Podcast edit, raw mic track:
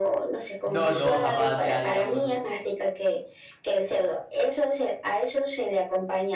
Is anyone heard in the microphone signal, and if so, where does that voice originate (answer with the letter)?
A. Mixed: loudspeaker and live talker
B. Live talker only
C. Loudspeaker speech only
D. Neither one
A